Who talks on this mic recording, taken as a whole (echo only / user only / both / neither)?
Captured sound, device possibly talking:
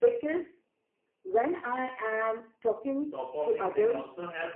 both